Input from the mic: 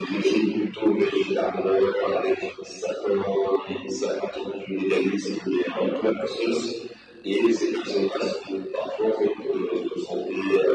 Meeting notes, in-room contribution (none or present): none